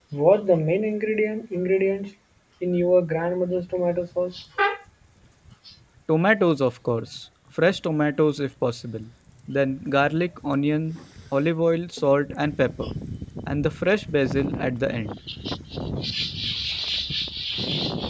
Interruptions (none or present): none